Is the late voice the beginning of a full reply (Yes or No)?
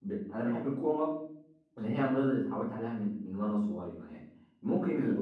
No